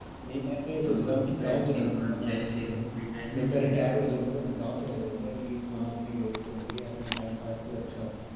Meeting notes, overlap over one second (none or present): present